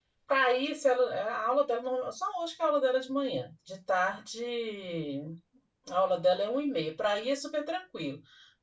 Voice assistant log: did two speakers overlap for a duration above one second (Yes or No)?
No